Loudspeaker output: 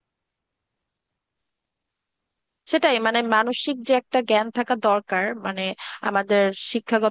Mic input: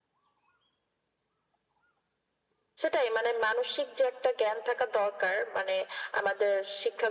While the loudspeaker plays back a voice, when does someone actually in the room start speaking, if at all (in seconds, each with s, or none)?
none